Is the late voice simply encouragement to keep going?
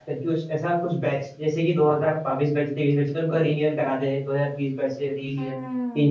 No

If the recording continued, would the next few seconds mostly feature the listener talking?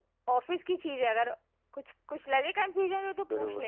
Yes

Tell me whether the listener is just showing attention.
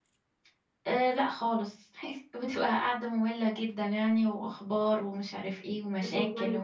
No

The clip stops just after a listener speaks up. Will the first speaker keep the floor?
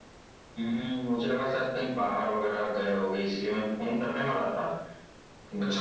Yes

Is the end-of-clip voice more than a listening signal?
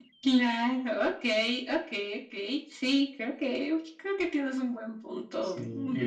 Yes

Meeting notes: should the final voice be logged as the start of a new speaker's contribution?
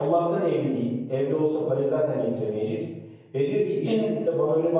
No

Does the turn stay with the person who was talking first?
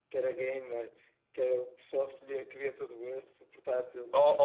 No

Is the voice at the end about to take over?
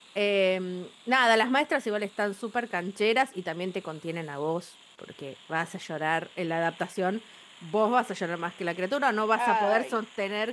No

